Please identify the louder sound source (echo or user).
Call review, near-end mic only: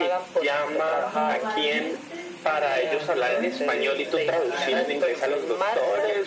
echo